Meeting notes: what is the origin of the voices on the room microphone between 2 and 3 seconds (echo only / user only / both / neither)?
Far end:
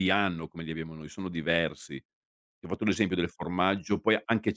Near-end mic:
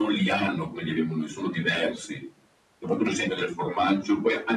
echo only